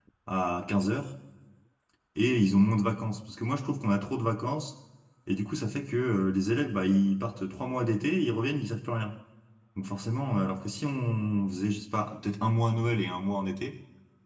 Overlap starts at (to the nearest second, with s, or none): none